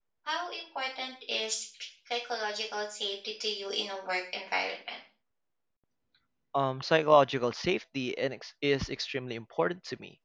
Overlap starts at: none

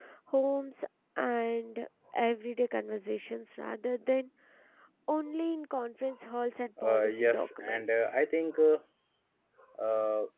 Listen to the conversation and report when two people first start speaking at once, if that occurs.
7 s

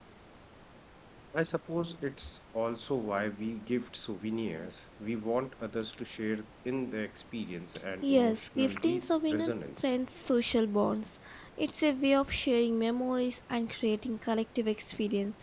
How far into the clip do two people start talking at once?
8 s

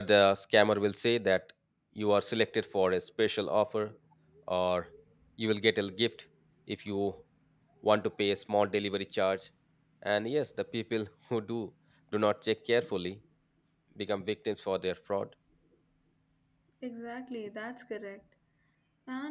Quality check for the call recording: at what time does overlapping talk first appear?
none

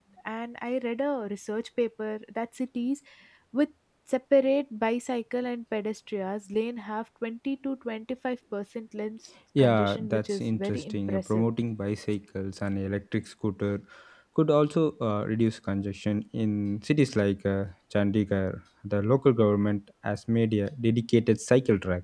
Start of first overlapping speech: 10 s

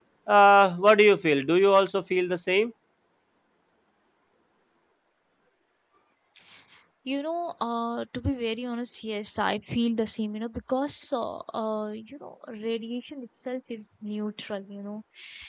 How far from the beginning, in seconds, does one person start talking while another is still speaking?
none

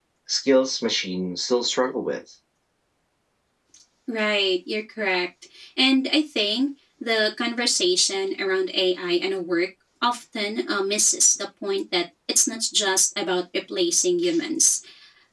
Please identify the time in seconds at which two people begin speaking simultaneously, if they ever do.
none

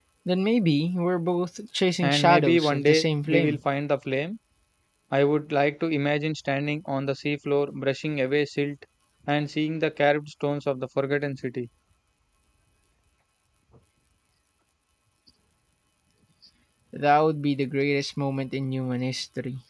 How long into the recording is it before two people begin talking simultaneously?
2 s

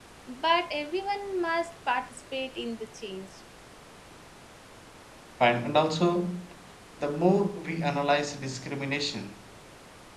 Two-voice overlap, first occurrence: none

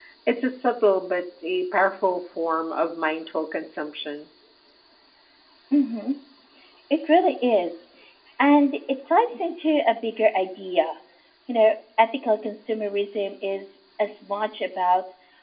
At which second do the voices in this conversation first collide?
none

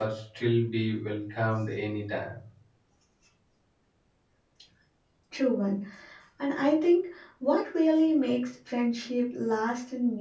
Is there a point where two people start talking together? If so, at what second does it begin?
none

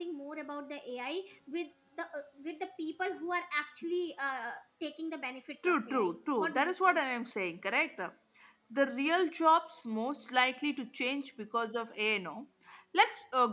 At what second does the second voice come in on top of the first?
6 s

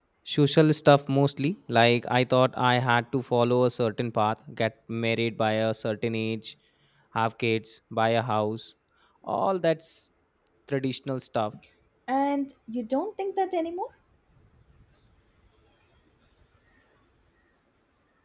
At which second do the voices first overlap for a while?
none

